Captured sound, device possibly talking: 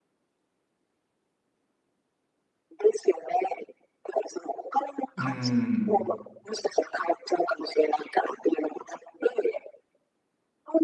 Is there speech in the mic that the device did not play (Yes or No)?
Yes